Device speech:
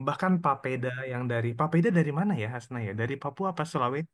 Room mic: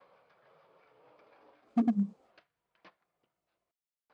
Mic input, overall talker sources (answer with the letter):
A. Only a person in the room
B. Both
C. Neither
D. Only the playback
A